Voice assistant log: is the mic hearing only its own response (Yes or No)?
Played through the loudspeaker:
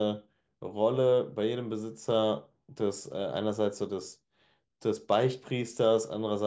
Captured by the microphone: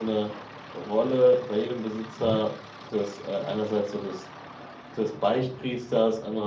No